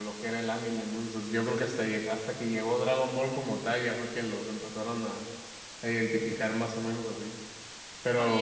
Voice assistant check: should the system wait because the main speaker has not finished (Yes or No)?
No